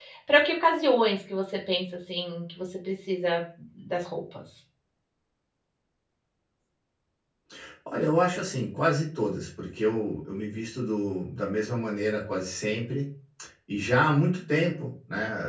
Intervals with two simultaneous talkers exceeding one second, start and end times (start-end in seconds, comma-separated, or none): none